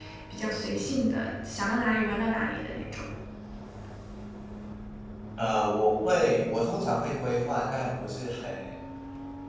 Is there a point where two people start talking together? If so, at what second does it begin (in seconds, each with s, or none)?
none